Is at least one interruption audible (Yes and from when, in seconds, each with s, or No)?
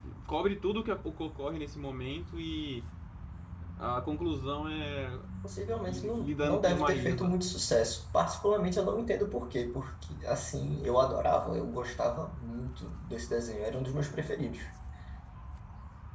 Yes, from 5.9 s